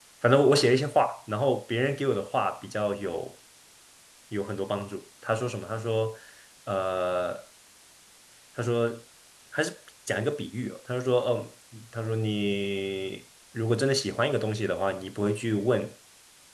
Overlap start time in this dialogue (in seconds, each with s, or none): none